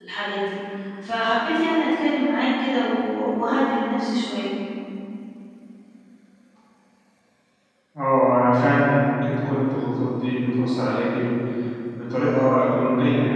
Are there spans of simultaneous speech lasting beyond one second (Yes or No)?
No